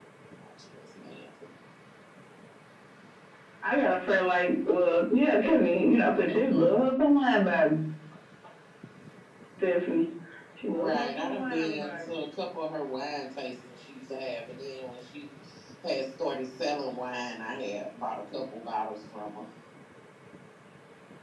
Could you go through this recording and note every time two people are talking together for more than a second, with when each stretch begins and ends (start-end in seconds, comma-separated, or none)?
10.7-12.2